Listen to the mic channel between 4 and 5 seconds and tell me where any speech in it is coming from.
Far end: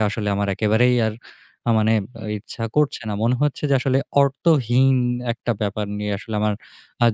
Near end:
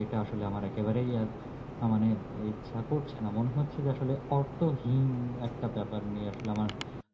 echo only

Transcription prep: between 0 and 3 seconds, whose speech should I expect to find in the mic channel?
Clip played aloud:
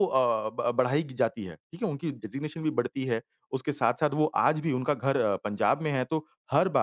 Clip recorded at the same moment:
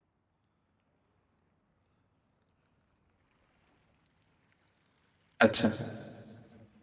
neither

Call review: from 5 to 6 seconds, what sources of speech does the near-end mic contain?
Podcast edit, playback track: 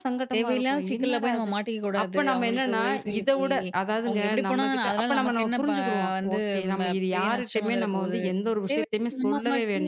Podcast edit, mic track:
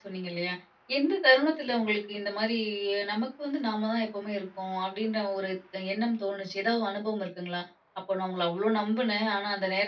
user only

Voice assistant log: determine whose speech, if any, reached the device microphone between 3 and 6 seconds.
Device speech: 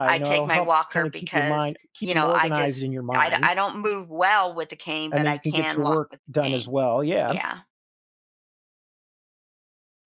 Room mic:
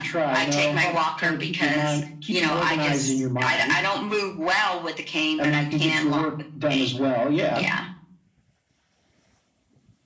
echo only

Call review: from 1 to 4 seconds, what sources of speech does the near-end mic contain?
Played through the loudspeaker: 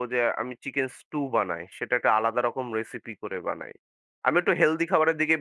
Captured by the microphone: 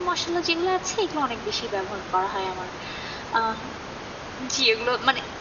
user only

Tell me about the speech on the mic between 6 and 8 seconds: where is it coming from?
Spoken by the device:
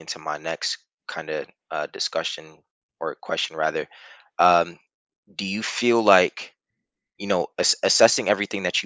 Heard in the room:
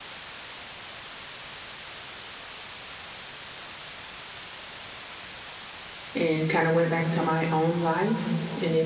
user only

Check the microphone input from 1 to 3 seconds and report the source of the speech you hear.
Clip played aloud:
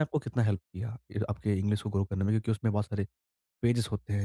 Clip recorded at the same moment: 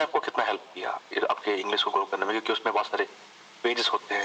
echo only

